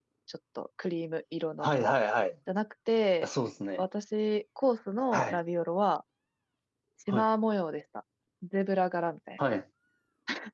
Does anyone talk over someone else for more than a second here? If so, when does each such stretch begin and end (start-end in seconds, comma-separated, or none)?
none